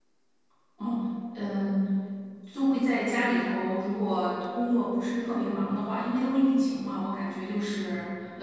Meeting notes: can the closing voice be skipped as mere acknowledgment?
Yes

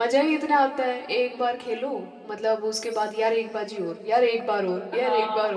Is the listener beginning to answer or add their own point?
Yes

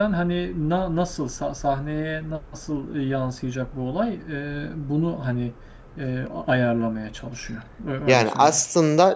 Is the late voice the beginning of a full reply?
Yes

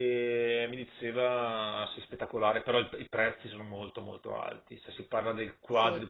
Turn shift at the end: No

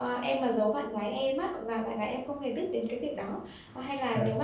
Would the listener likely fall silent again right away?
Yes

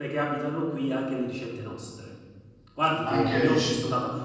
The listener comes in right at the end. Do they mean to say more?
No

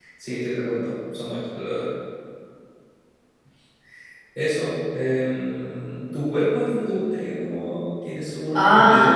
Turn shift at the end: Yes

